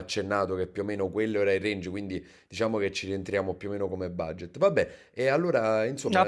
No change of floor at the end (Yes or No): No